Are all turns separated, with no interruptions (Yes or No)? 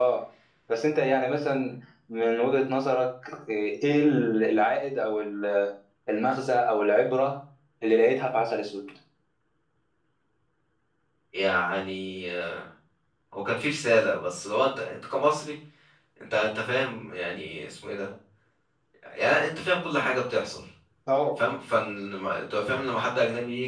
Yes